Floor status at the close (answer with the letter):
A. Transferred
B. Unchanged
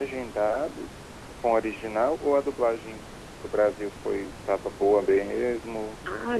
A